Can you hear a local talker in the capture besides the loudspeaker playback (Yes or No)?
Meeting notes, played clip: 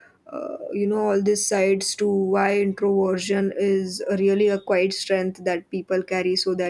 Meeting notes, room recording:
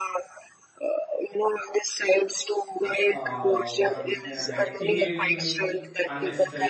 Yes